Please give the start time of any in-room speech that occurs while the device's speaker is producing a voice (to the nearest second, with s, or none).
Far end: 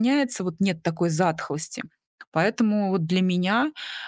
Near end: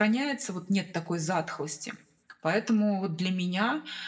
none